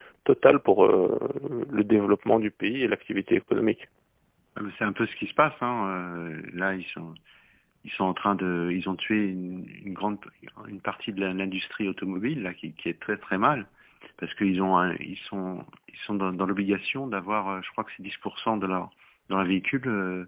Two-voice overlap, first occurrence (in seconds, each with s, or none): none